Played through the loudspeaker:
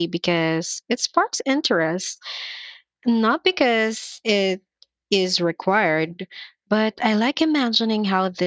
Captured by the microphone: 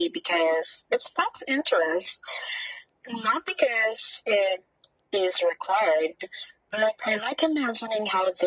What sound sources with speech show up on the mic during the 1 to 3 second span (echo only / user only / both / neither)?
echo only